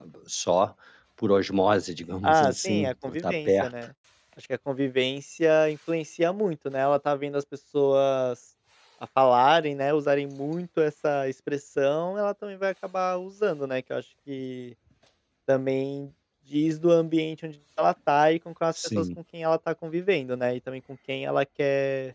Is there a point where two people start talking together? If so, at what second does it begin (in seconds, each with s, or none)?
2.2 s